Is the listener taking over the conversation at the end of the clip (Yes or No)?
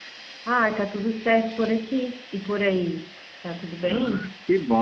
Yes